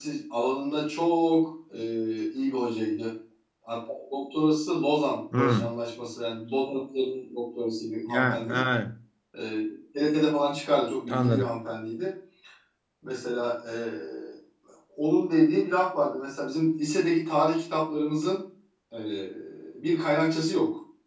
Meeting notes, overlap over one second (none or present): none